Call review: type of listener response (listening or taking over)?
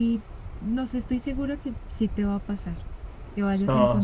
taking over